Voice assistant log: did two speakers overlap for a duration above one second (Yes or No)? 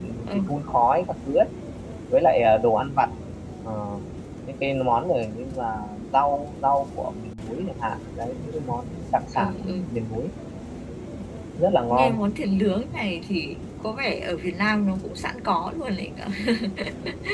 No